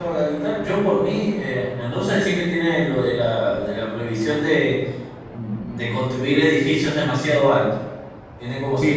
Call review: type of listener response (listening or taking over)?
taking over